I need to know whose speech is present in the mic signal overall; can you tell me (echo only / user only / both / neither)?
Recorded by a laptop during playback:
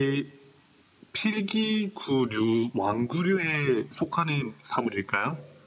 echo only